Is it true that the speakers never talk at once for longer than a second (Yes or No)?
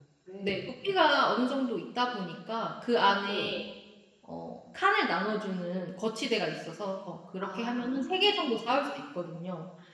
No